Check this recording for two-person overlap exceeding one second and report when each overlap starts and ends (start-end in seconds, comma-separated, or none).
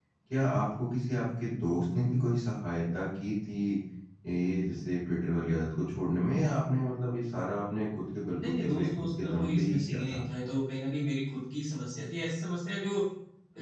8.4-10.2